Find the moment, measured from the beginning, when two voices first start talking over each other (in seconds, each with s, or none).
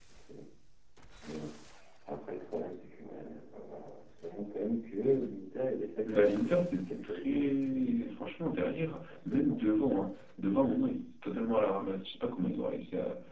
6.1 s